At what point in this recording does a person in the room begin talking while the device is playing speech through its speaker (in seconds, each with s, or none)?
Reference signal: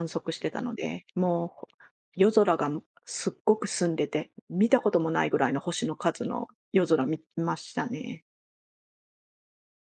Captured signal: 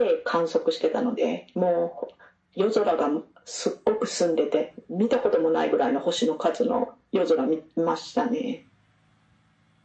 none